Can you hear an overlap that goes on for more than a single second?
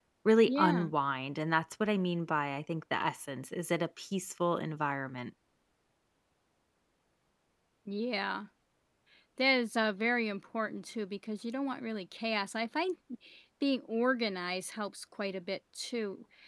No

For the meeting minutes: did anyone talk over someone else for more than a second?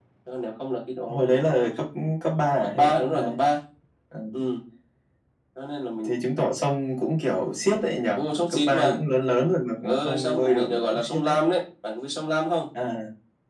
Yes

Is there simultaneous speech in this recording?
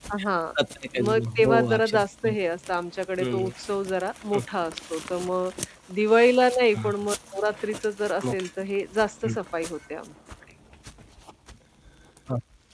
Yes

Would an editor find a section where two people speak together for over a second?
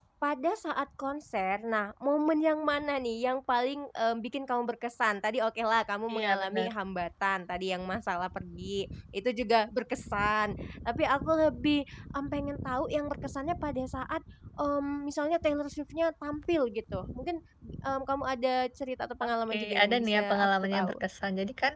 Yes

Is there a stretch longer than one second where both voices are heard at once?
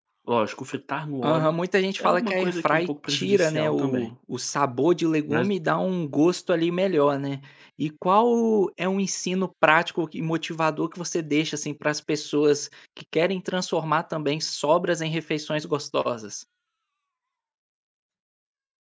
Yes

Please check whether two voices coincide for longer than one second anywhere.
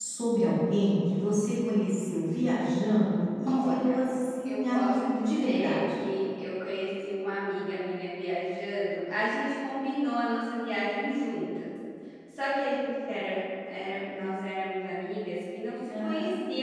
Yes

